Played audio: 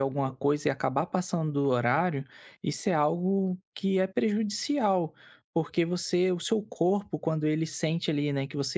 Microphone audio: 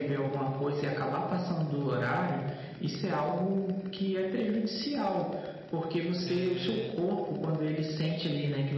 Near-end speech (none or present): present